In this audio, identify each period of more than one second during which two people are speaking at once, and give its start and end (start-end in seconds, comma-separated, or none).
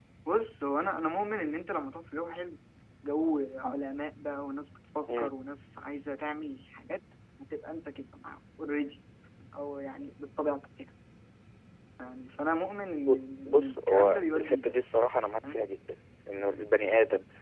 13.4-14.8